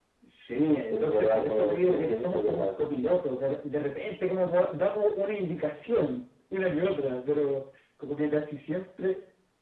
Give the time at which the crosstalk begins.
0.9 s

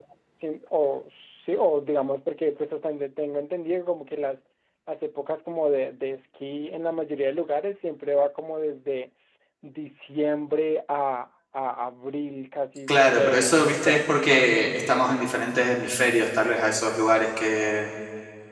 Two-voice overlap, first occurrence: 12.9 s

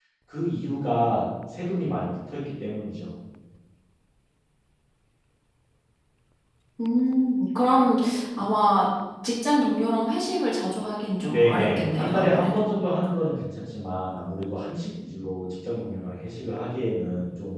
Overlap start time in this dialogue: 11.3 s

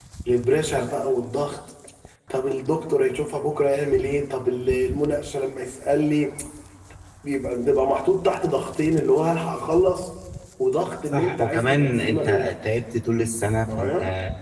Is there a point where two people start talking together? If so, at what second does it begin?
11.1 s

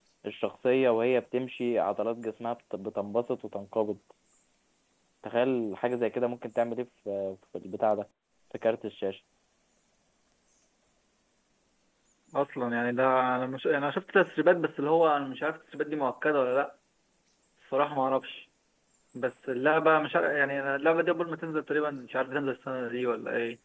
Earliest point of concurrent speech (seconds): none

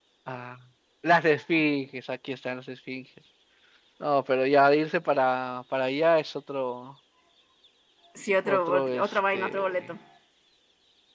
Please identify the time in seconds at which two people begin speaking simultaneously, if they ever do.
8.5 s

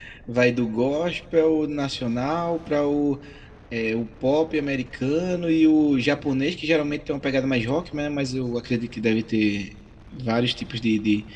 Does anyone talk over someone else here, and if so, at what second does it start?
none

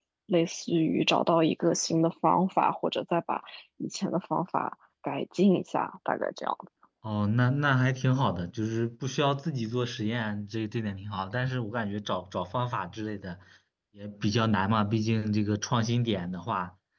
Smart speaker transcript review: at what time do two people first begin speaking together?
none

